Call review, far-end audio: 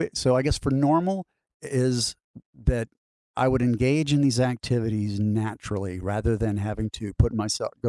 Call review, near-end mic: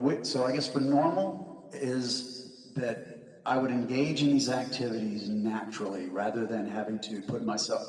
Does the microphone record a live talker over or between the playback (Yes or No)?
No